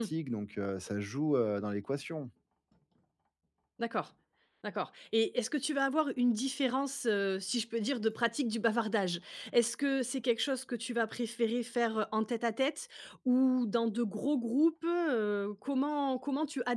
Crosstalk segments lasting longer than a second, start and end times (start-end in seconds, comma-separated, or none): none